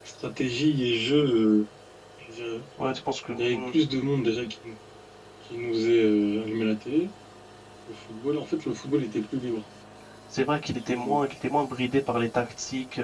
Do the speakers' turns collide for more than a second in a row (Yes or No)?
No